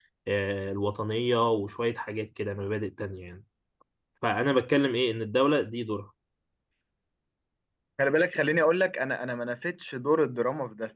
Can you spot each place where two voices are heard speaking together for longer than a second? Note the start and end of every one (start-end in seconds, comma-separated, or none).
none